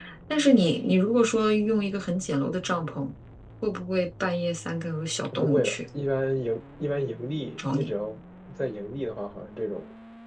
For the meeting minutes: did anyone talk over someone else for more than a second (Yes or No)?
No